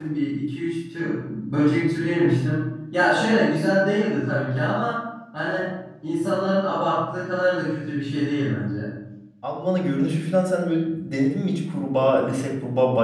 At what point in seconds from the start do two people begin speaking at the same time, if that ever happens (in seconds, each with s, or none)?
none